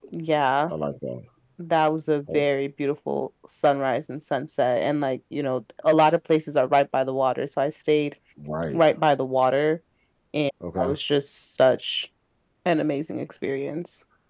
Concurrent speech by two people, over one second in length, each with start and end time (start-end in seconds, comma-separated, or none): none